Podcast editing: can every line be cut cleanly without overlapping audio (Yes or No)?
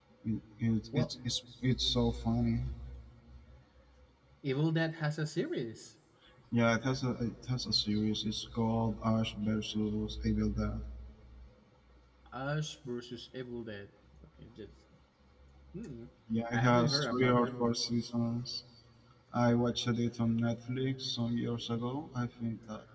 No